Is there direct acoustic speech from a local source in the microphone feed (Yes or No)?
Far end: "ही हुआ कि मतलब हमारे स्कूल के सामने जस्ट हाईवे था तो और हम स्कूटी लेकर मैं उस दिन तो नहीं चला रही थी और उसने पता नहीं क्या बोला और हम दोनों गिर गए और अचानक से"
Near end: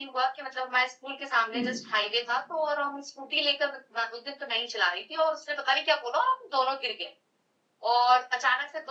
Yes